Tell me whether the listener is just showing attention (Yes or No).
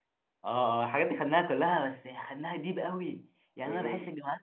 Yes